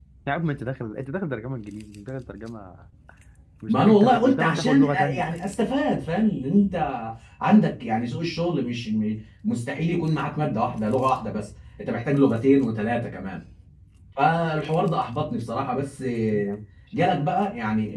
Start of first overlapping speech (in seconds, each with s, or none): 3.7 s